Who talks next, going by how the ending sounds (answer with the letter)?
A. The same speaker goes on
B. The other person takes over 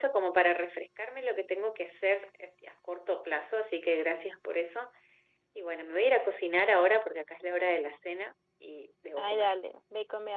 B